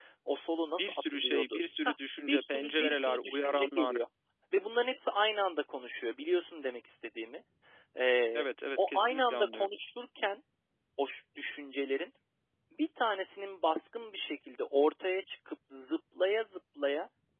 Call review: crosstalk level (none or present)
present